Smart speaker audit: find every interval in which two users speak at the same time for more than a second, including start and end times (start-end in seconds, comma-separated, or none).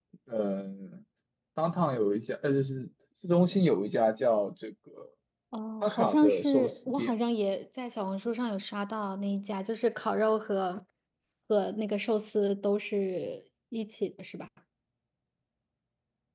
5.8-7.1